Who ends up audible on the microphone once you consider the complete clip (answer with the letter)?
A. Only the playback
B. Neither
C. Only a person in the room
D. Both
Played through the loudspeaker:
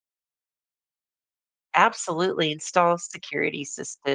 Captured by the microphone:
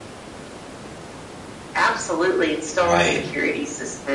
D